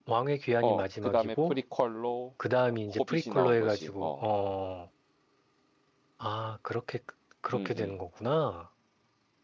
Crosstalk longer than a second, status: present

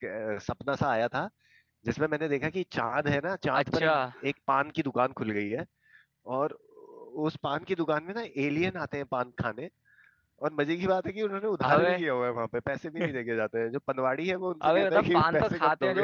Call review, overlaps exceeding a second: present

